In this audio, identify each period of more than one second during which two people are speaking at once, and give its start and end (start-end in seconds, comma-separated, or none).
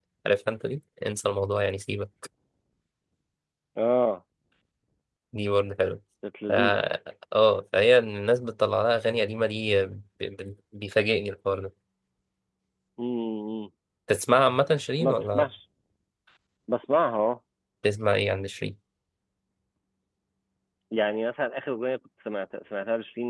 none